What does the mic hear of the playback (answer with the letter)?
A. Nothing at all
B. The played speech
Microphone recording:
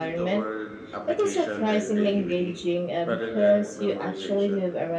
B